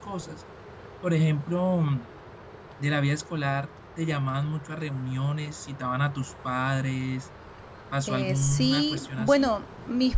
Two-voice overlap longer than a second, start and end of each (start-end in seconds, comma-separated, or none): 8.1-9.5